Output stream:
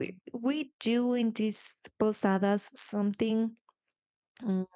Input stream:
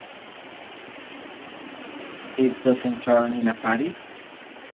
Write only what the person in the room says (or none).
it doesn't turn in a party.